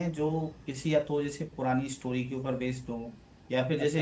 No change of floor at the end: Yes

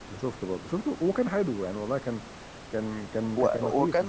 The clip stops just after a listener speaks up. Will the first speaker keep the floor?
No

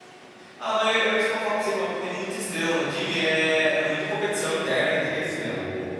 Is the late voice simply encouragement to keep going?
No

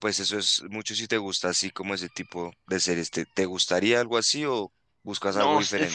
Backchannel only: No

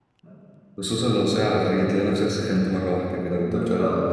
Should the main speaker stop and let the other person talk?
Yes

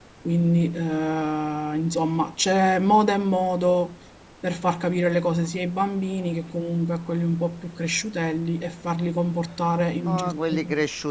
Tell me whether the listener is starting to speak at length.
Yes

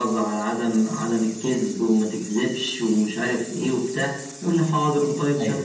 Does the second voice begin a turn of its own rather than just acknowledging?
No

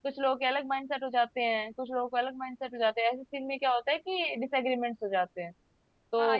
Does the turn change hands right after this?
Yes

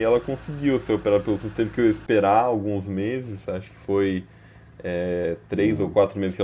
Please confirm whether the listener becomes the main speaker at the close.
No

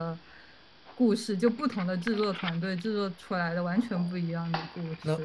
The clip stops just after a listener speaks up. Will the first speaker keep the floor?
No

